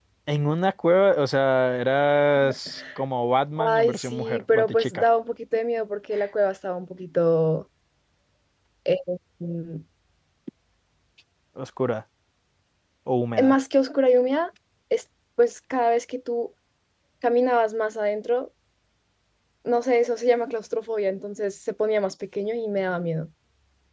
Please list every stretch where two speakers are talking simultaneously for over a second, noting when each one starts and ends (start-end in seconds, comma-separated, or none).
3.6-5.1